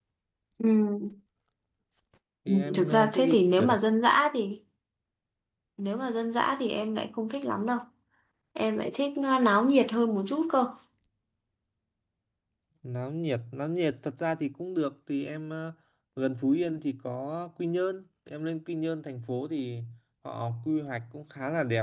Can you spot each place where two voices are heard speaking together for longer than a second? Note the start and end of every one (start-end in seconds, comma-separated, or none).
2.5-3.7